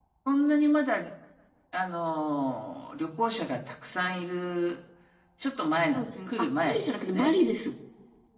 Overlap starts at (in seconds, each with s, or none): 5.9 s